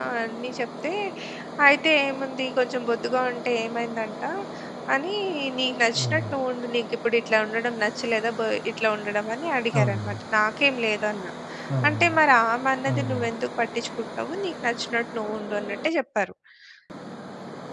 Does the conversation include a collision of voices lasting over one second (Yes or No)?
No